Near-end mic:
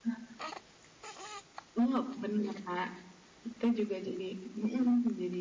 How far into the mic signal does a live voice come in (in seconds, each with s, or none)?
none